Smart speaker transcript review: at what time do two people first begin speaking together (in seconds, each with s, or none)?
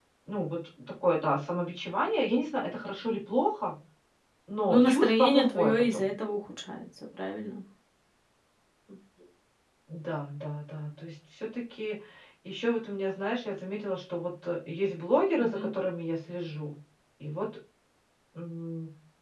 4.7 s